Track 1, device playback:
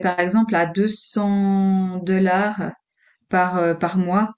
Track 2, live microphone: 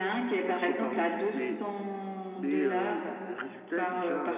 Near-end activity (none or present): present